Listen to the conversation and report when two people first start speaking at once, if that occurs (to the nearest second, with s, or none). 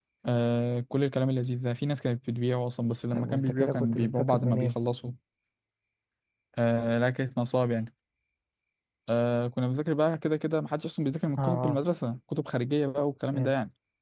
3 s